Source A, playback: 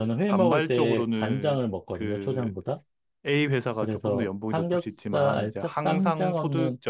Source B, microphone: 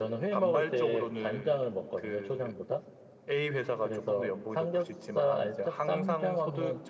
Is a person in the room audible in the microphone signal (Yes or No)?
No